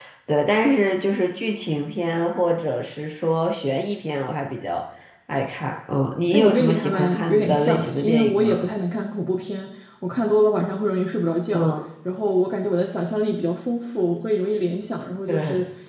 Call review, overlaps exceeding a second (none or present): present